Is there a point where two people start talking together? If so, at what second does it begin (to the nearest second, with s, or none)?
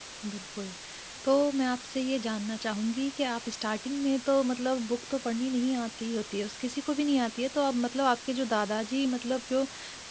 none